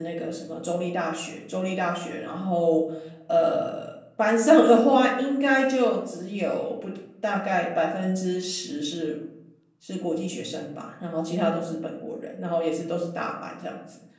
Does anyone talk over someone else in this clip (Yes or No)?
No